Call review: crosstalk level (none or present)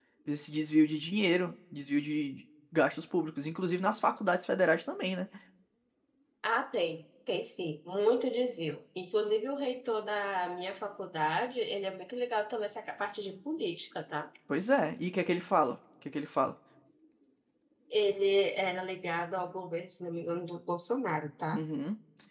none